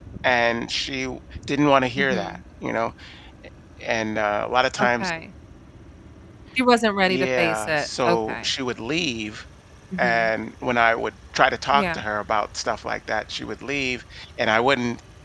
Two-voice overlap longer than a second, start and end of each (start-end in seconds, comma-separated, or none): 7.0-8.5